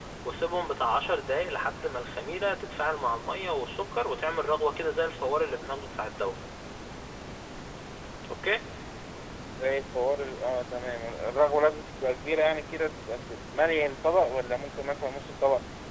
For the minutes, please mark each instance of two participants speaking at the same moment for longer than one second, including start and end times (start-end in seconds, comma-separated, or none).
none